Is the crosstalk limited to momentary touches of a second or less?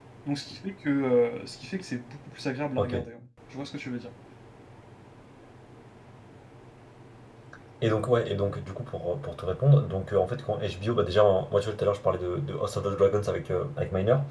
Yes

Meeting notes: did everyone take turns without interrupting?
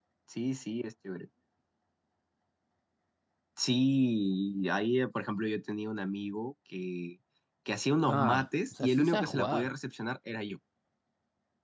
No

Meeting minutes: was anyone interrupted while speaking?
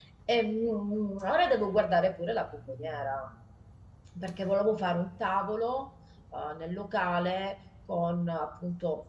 No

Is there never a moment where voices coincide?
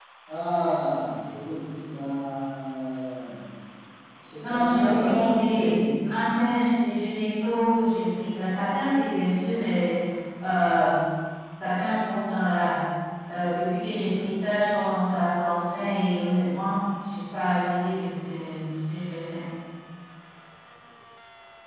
No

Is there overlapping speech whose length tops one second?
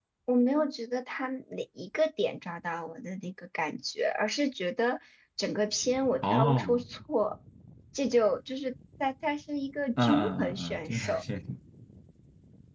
Yes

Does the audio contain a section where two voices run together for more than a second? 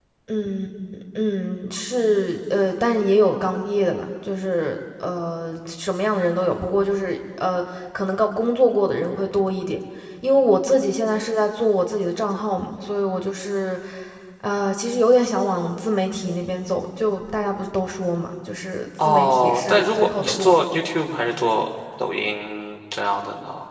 Yes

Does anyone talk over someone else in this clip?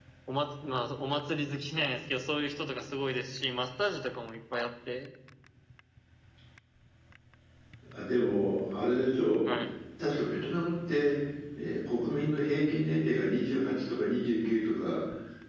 No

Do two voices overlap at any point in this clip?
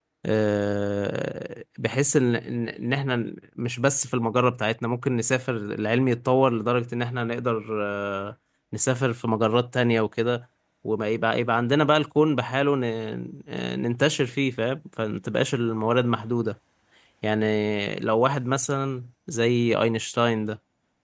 No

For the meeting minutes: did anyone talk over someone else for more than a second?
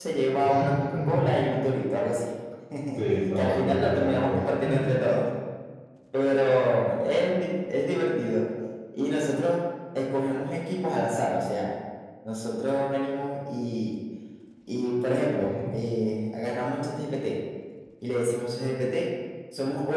Yes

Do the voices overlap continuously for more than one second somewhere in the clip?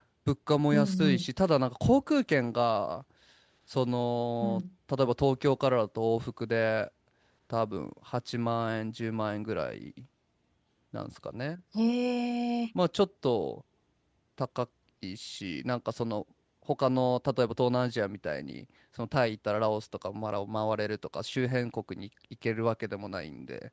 No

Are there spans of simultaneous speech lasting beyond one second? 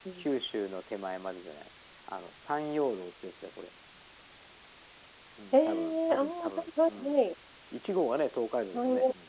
Yes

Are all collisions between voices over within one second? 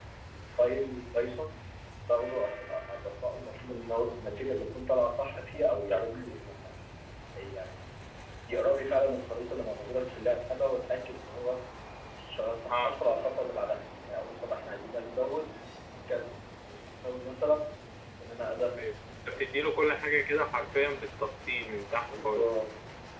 Yes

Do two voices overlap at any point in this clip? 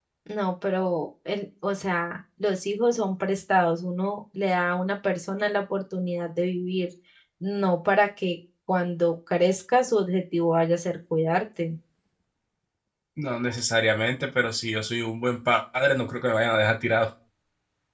No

